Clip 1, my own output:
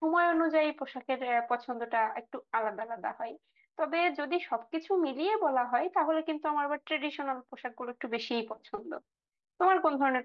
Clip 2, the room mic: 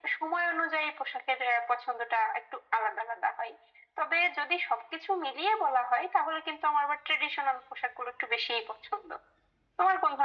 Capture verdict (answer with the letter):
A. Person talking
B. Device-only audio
B